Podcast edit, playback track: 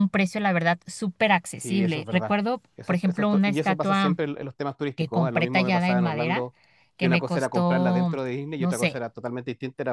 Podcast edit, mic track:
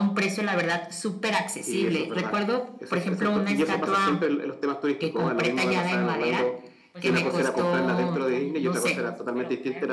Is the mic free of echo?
No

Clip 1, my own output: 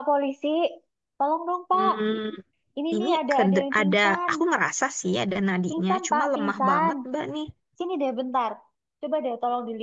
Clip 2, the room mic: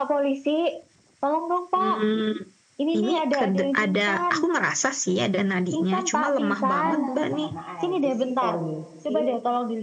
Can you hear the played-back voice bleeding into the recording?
Yes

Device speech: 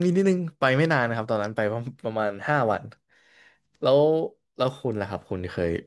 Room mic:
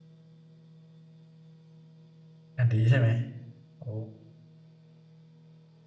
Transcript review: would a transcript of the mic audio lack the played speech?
Yes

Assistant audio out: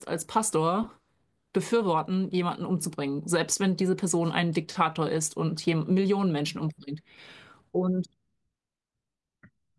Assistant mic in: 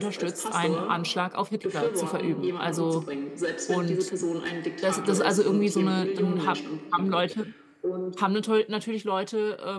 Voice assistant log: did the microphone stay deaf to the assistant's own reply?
No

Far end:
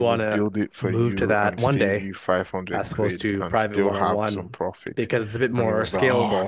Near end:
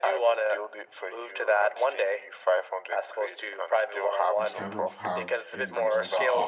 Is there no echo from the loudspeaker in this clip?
No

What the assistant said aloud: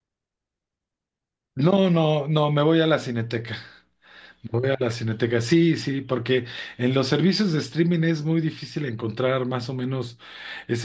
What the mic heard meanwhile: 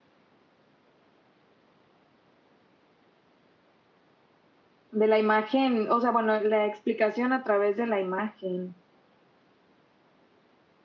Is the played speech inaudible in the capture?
Yes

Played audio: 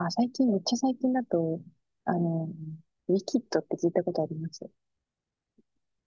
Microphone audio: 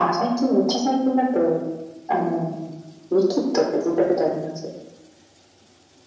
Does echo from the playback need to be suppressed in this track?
Yes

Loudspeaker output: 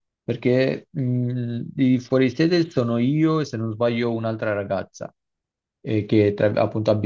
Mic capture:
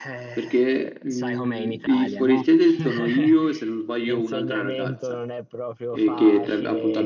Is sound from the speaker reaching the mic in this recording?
Yes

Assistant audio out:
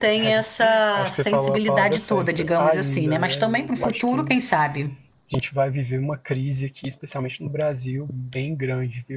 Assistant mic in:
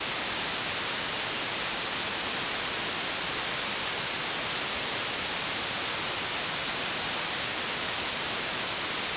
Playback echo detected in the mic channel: No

